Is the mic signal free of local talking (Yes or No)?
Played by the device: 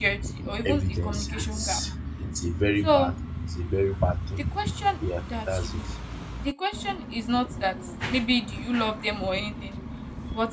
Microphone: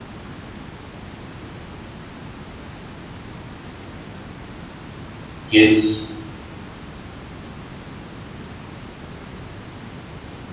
No